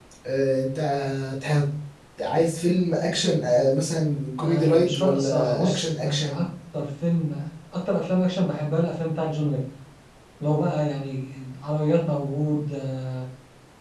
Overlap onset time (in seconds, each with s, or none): 4.4 s